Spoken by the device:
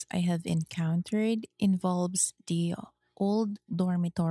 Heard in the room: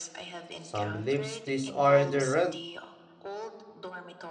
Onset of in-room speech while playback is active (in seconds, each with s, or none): 0.5 s